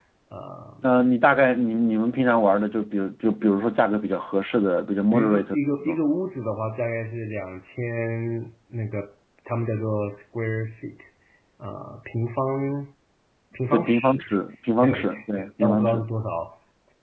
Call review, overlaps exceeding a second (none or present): present